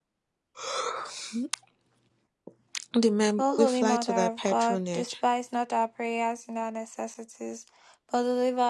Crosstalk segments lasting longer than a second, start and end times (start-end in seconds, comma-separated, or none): 3.4-5.1